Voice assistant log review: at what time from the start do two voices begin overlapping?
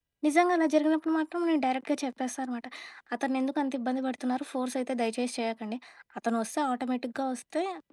none

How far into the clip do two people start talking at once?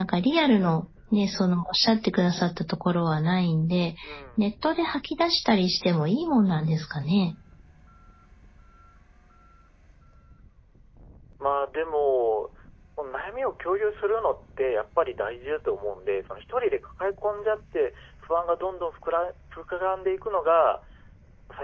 none

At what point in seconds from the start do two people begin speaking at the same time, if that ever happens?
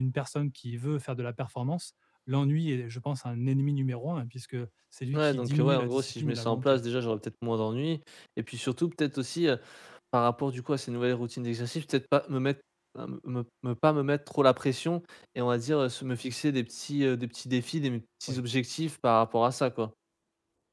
5.1 s

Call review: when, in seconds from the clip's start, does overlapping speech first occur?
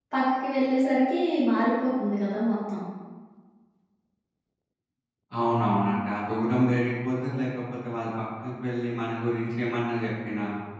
none

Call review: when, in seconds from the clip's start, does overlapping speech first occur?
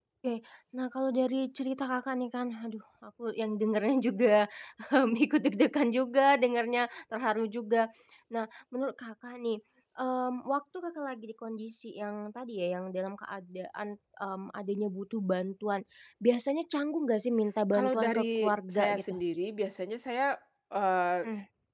17.7 s

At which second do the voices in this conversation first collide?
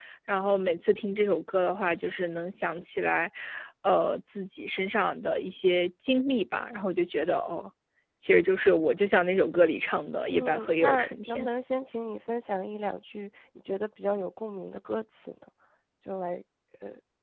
10.3 s

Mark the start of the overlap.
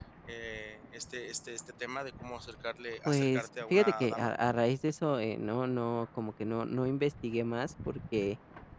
3.0 s

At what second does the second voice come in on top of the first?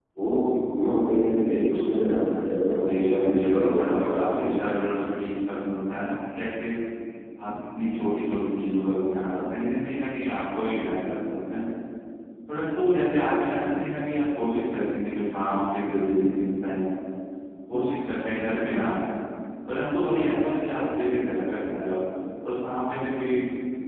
2.9 s

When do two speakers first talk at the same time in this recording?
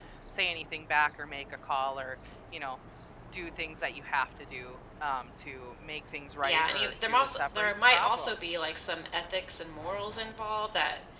6.4 s

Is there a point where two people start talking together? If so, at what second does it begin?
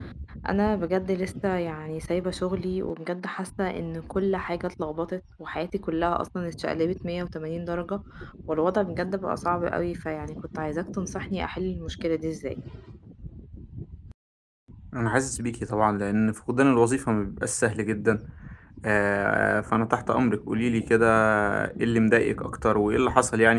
none

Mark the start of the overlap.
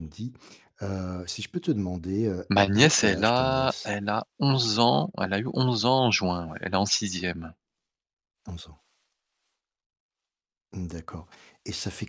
2.5 s

